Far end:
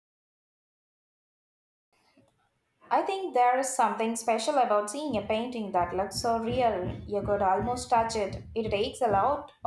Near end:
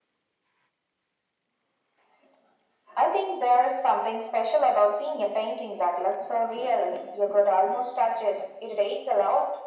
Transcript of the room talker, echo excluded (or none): none